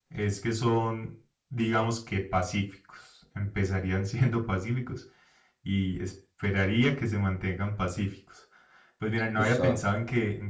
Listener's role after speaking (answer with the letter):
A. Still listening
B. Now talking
A